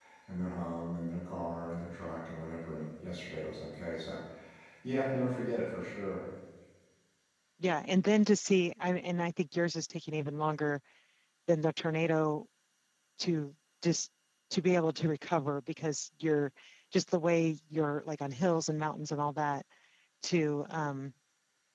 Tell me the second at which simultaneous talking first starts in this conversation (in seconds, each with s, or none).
none